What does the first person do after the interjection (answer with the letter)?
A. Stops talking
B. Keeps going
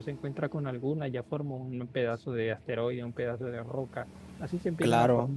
B